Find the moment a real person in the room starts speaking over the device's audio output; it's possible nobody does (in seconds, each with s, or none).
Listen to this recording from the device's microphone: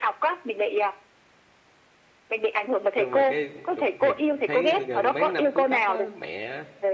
3.0 s